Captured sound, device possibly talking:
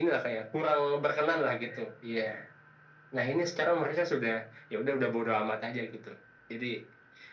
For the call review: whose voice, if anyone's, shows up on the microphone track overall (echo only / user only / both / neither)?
echo only